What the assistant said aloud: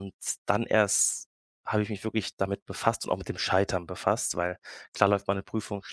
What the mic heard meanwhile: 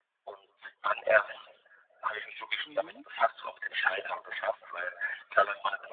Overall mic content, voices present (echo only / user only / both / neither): both